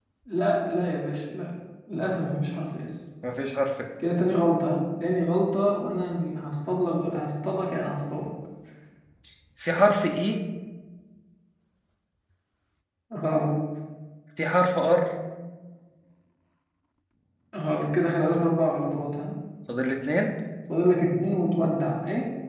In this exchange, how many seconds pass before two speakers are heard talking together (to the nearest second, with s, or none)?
none